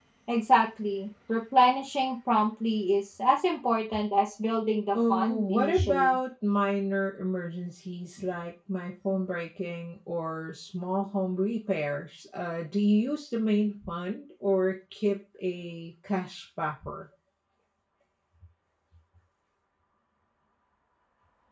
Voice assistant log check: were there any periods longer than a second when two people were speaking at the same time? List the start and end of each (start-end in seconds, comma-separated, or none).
4.9-6.2